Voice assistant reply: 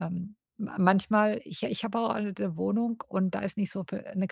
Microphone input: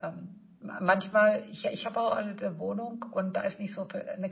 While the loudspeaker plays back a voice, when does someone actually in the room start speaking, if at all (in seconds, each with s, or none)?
none